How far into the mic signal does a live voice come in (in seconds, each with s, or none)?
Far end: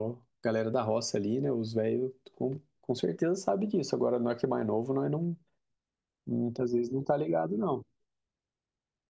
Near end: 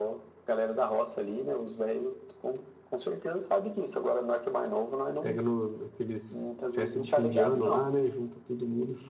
5.2 s